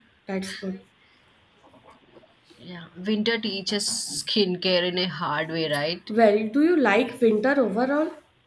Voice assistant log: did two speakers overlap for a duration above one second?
No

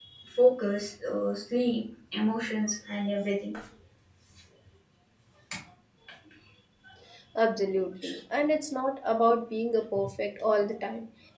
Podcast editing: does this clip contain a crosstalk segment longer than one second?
No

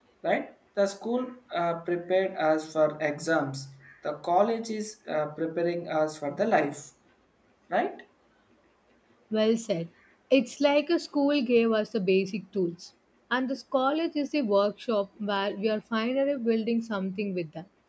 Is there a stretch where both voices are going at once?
No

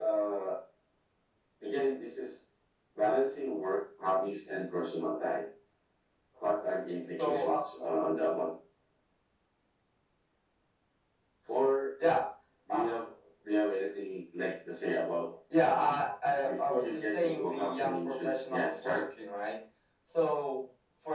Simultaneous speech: Yes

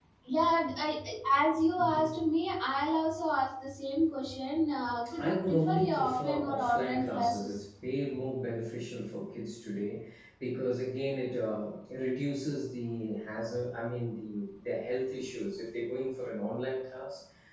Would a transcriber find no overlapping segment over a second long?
No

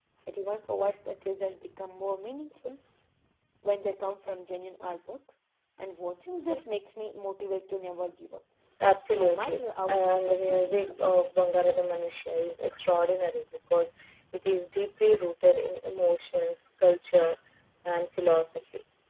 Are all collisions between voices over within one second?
No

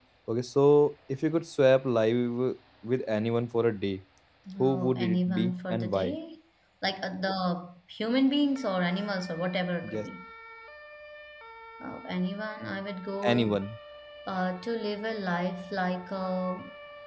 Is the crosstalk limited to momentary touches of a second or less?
No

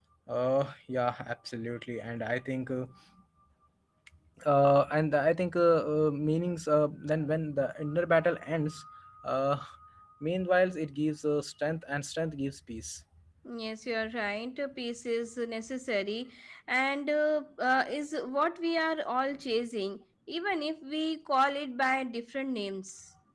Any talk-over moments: No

